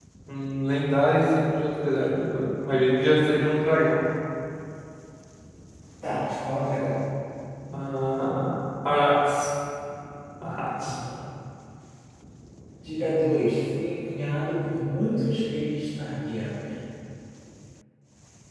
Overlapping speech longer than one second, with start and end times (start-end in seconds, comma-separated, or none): none